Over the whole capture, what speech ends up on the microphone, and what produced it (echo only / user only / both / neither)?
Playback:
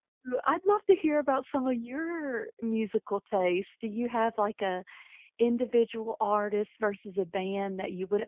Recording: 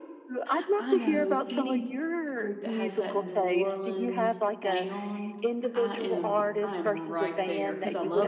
both